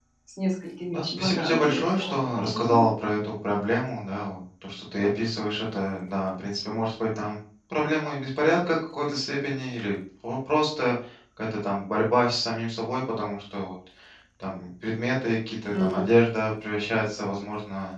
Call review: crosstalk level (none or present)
present